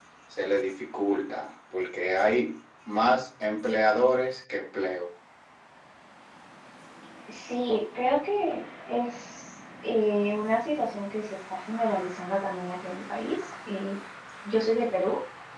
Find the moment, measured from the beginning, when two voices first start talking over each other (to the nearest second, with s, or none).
none